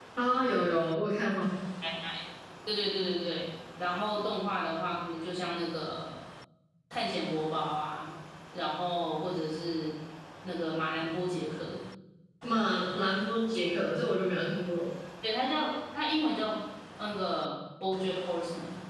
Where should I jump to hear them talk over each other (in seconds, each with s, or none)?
none